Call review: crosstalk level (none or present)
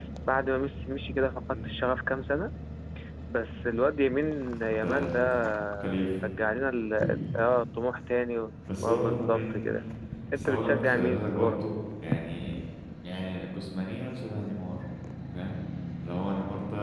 present